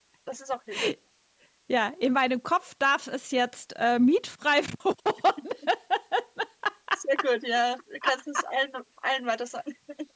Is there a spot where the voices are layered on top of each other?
No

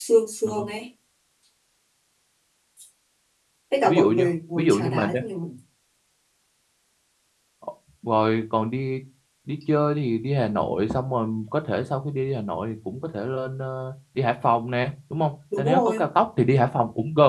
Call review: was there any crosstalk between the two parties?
Yes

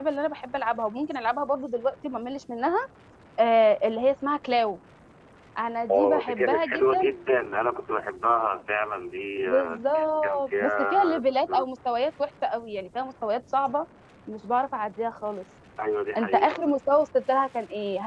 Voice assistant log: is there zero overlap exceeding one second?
No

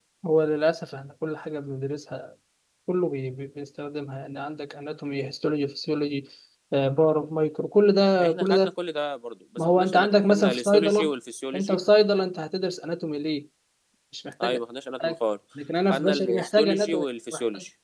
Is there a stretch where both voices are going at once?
Yes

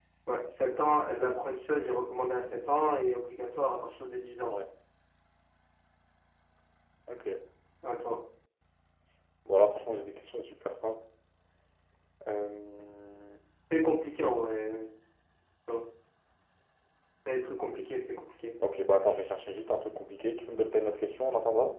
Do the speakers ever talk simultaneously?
No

